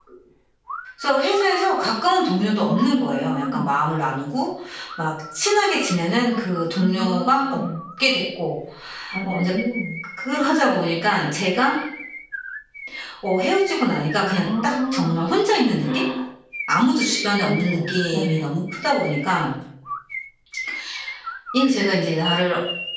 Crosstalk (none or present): present